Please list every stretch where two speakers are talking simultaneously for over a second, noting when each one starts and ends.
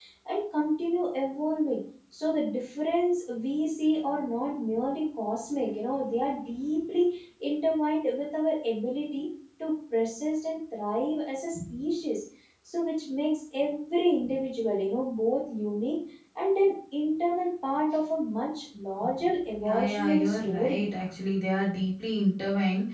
19.6-20.8

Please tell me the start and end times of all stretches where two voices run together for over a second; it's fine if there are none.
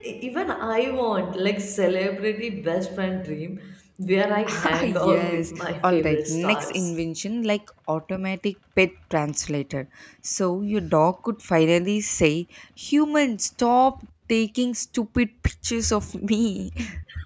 4.6-6.8

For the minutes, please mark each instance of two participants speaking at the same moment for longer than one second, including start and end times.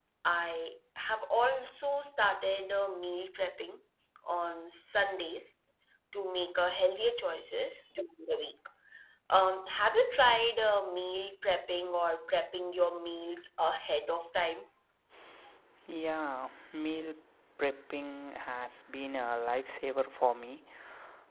none

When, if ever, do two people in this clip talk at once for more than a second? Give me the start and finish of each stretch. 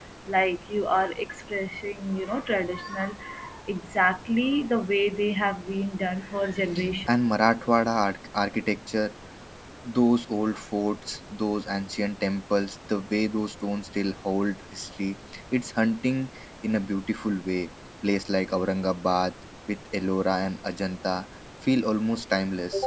none

